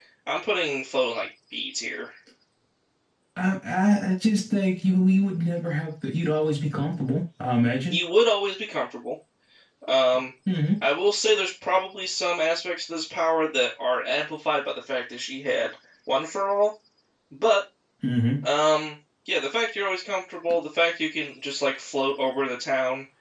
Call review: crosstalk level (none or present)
none